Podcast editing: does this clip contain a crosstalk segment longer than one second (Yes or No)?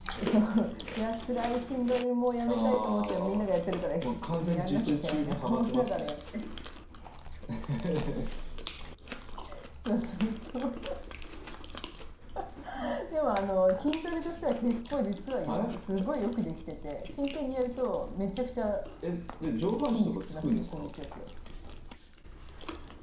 Yes